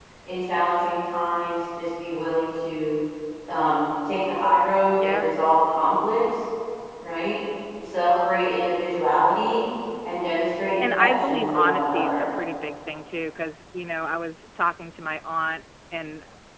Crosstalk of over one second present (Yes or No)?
Yes